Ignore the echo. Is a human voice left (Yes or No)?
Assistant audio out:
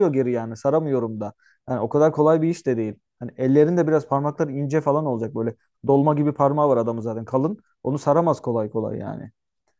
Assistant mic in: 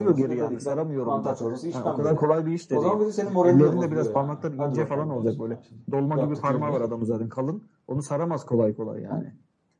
Yes